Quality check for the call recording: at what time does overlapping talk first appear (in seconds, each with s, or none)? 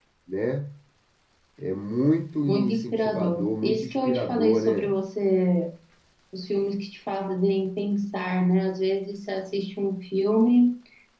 2.5 s